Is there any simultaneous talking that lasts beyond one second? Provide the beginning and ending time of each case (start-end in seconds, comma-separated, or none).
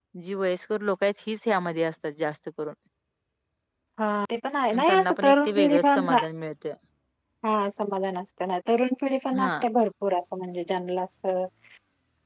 4.7-6.1